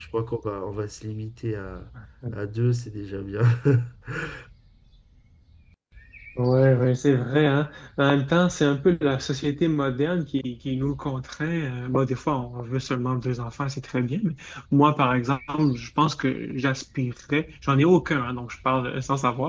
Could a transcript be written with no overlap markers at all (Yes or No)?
Yes